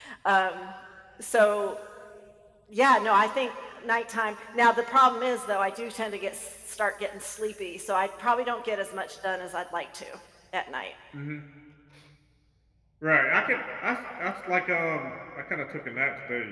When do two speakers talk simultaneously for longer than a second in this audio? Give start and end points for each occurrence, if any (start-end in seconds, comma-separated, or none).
none